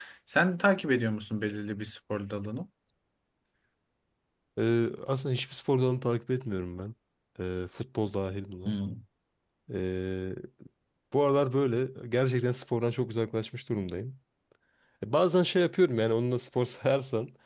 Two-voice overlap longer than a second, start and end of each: none

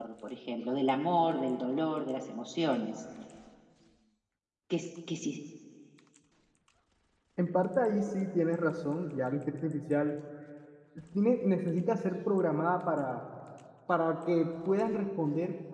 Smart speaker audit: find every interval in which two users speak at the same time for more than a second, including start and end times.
none

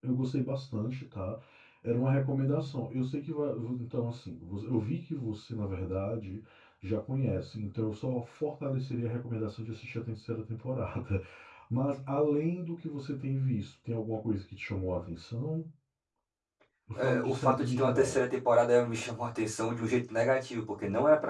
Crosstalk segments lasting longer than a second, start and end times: 17.0-18.2

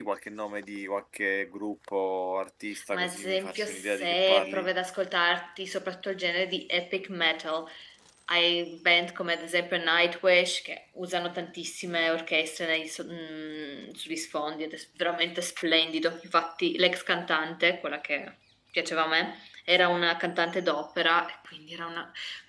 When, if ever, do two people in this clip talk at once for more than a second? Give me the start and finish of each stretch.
2.9-4.7

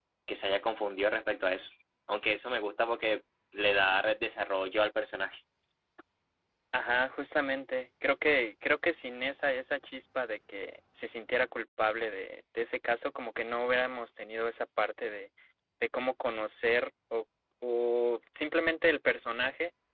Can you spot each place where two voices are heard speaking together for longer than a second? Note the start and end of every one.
none

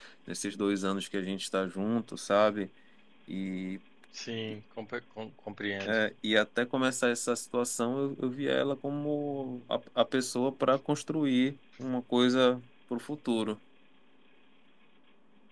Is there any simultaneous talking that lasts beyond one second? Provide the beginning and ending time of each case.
none

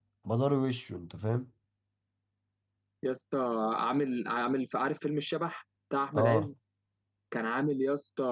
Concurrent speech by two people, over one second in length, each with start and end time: none

